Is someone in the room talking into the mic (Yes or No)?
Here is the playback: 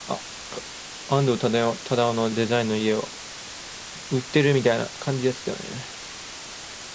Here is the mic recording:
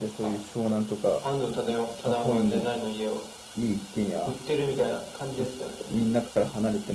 Yes